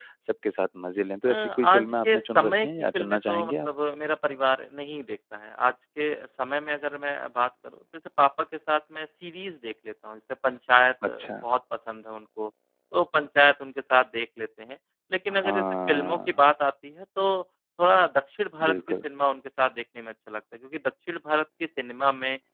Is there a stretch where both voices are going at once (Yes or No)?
Yes